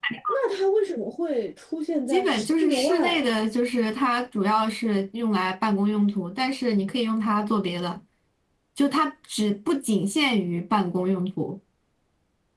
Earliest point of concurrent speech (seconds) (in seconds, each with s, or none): 2.1 s